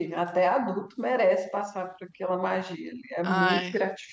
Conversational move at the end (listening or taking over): listening